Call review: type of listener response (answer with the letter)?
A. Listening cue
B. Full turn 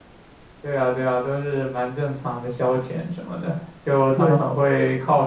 A